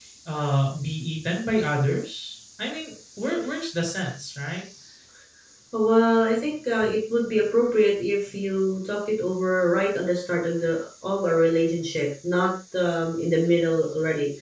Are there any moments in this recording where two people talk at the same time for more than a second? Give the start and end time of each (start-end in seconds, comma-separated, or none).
none